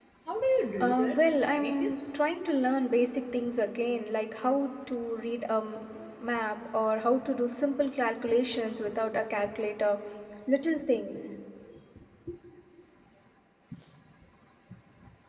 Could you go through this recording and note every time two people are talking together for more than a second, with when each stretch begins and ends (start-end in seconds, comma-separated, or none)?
0.8-2.2